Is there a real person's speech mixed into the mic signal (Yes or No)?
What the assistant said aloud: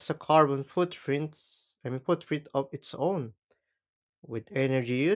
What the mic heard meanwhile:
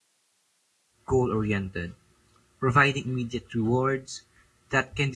Yes